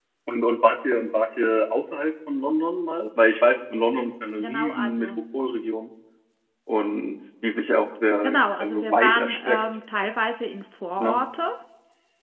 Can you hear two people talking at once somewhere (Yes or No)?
Yes